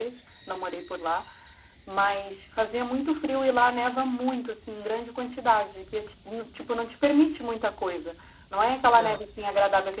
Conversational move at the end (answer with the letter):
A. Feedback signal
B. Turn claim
A